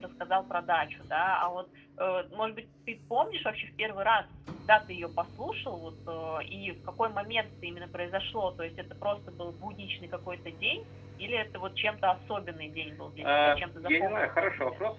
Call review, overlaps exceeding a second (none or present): present